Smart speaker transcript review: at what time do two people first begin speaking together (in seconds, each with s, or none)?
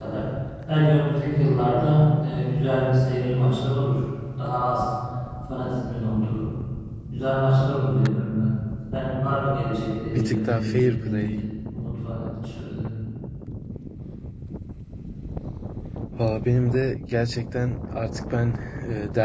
10.1 s